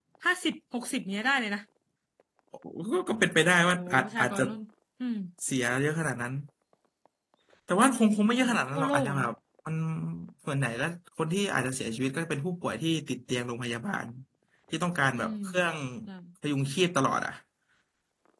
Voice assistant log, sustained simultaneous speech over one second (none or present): present